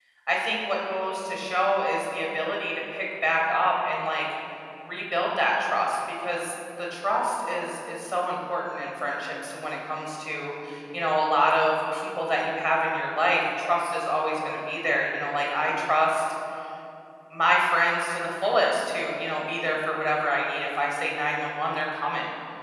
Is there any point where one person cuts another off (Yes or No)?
No